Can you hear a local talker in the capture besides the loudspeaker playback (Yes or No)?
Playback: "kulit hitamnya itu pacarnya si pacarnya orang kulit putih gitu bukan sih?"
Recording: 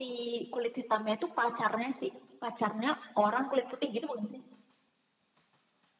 No